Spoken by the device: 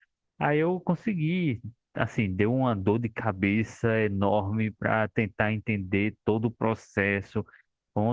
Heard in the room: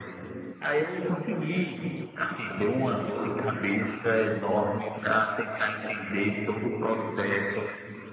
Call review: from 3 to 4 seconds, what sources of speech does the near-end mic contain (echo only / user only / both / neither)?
echo only